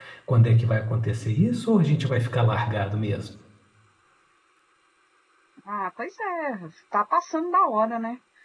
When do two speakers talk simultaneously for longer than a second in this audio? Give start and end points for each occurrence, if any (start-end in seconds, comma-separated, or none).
none